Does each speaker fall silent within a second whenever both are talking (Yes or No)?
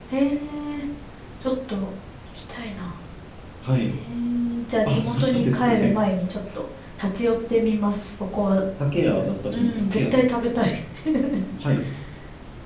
No